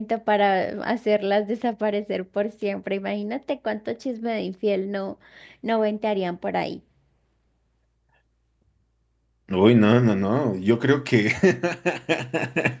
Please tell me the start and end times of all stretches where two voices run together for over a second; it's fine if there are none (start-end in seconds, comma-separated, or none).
none